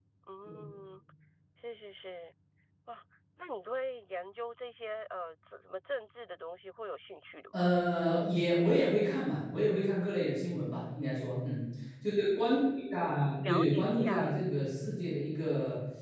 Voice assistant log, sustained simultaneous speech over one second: present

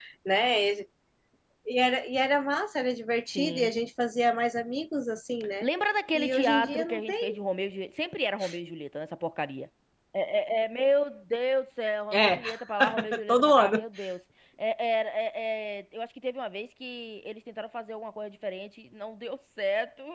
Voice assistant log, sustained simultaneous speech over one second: present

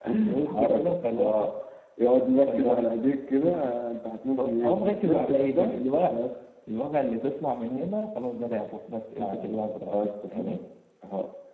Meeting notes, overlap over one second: present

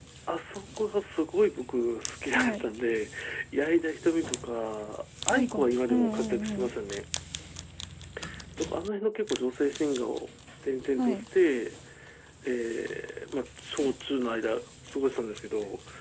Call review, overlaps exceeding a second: present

